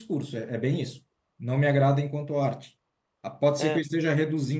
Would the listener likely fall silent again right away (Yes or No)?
Yes